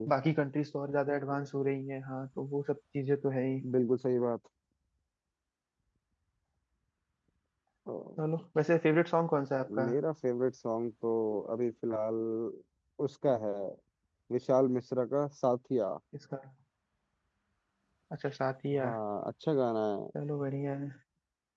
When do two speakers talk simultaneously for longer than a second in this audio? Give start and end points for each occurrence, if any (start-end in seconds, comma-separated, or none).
none